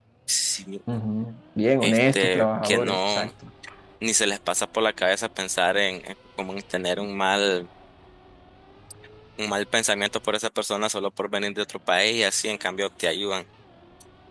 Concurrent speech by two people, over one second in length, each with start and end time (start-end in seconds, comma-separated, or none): 1.8-3.2